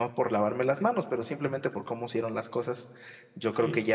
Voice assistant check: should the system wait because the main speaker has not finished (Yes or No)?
Yes